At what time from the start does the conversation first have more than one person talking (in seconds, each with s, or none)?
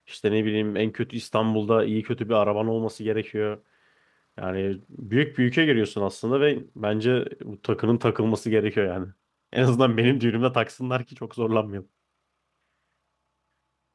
none